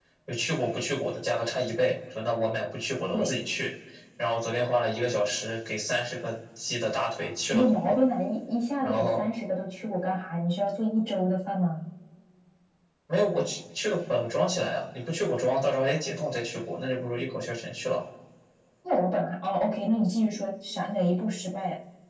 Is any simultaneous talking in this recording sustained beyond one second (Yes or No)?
No